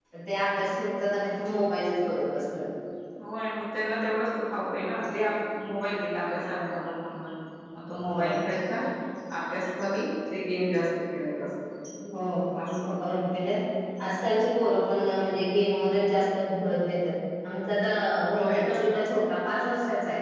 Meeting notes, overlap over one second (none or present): none